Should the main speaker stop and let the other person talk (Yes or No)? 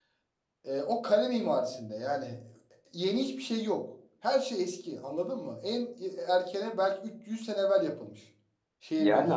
Yes